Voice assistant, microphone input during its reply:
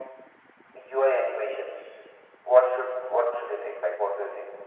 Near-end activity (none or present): none